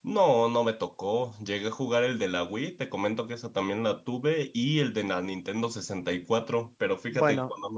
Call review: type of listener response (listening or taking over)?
listening